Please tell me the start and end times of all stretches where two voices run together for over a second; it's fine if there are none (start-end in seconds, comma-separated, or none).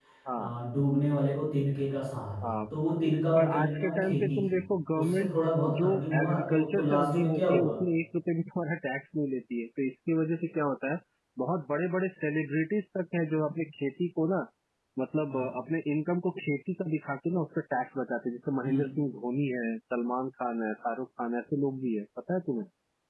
3.4-4.6, 5.8-7.8